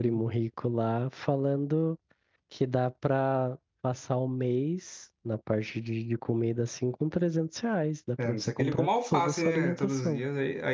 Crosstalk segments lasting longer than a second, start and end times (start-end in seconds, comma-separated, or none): 8.2-10.2